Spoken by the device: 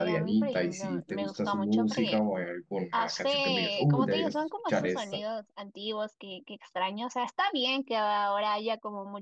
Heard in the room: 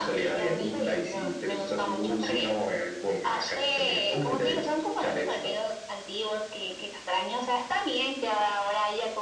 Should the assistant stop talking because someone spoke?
No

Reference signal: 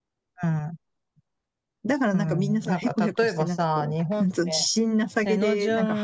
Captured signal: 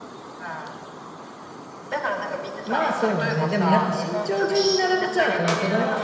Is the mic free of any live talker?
No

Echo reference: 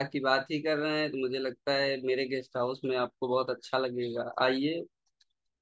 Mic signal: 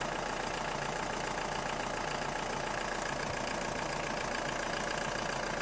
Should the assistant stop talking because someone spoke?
No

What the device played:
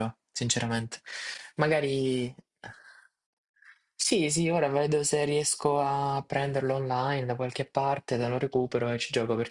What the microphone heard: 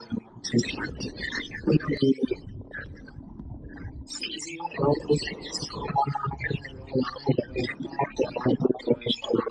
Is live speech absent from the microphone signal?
Yes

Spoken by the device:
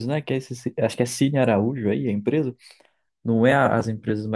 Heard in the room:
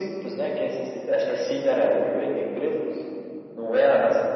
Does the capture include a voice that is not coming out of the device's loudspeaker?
No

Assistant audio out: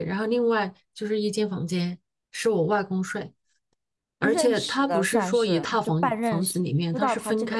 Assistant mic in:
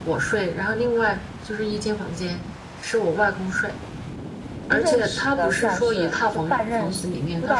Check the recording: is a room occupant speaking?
No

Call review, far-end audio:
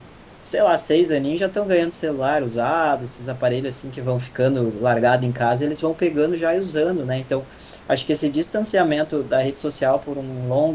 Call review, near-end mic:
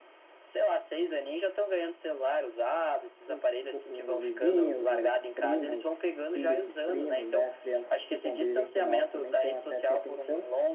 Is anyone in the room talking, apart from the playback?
Yes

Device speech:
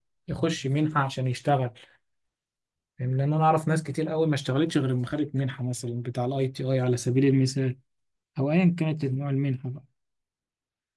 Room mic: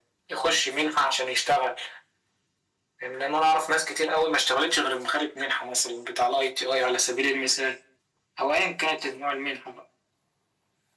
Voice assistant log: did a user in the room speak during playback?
No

